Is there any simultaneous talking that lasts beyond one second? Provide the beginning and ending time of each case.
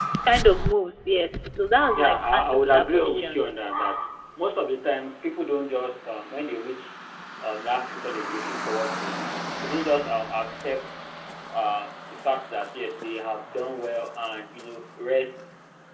2.0-3.4

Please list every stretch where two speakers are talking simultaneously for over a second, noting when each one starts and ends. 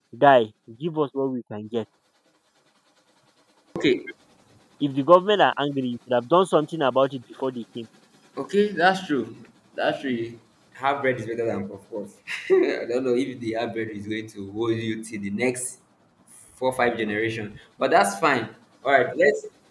none

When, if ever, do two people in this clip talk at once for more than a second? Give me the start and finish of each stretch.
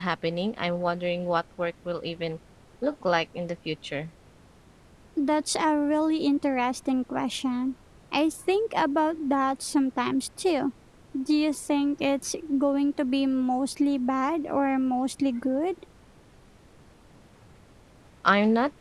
none

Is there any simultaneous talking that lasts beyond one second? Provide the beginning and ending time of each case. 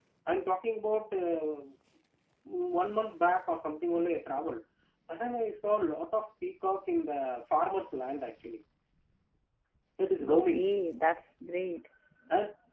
none

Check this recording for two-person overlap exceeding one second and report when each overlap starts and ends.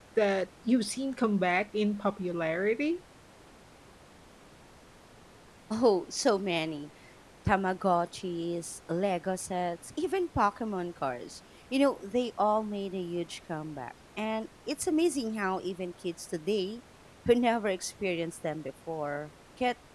none

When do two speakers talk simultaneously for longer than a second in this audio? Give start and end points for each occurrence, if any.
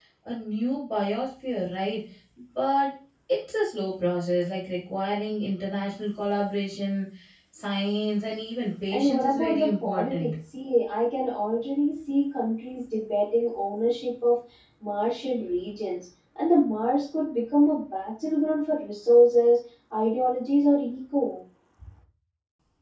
8.9-10.3

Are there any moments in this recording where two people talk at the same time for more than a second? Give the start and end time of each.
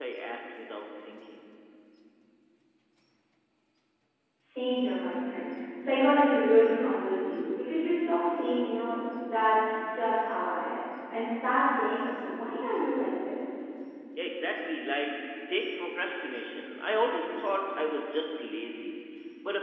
none

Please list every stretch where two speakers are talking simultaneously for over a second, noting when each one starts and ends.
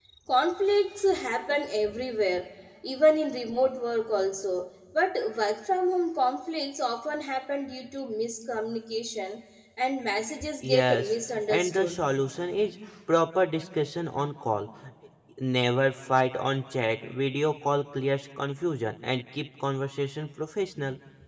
10.6-12.0

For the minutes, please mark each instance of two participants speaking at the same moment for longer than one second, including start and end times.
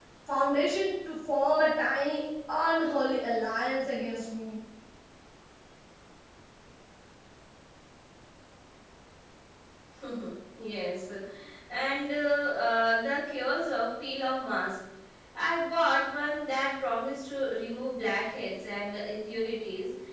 none

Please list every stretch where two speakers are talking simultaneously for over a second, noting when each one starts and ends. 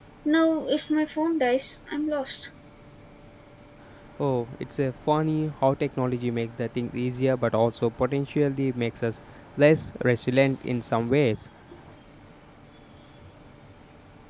none

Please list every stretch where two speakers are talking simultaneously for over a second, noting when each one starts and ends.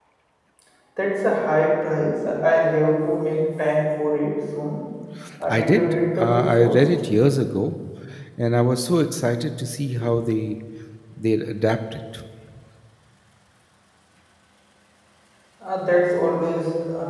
5.5-6.9

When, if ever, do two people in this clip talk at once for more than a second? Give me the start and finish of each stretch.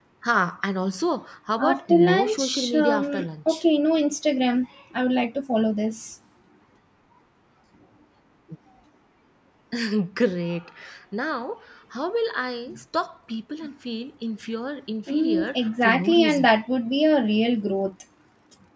1.6-3.6, 15.1-16.5

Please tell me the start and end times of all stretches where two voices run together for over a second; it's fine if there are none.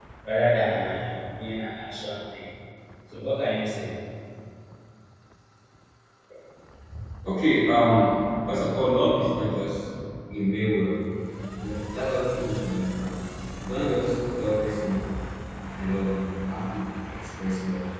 none

